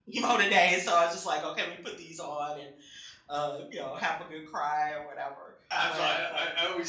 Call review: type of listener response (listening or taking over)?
taking over